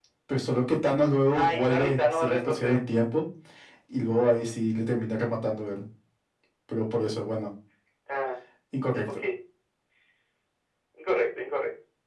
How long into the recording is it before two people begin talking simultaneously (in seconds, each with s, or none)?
1.3 s